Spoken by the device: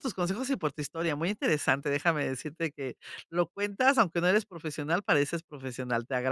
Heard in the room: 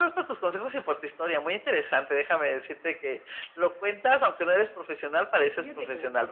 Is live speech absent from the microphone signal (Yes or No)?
No